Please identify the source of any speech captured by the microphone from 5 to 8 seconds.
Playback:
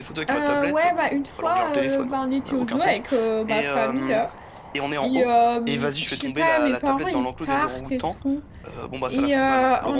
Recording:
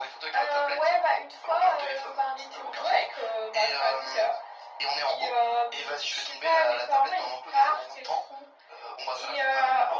echo only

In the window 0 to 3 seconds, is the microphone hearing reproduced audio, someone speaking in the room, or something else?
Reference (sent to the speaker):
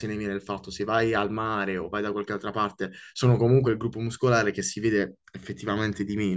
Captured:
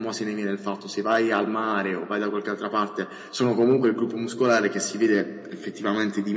echo only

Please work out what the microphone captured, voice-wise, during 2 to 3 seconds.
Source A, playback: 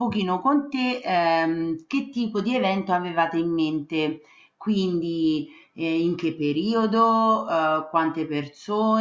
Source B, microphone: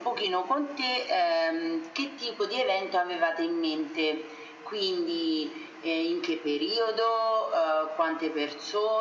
echo only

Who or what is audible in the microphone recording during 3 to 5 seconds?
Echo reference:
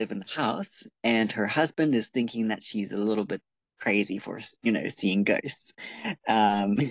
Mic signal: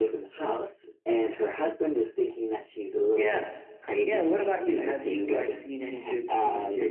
both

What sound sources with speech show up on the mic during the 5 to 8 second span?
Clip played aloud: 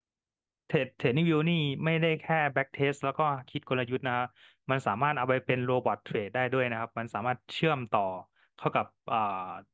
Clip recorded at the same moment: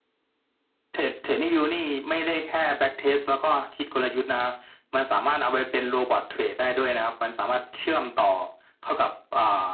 echo only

